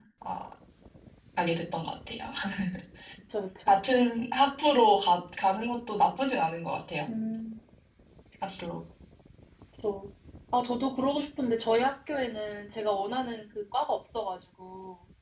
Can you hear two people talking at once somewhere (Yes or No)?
No